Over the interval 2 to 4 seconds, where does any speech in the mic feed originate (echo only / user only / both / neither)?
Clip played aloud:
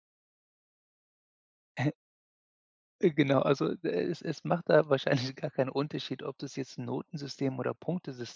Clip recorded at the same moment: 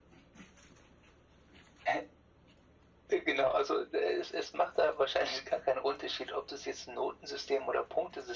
echo only